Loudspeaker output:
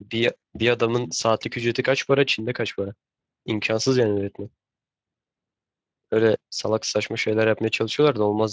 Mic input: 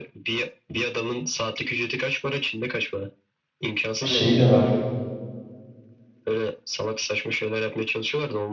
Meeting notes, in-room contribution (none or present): present